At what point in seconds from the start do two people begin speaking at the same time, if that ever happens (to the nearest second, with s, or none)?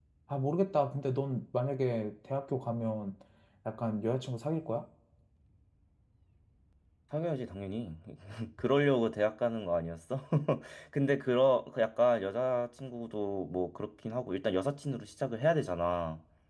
none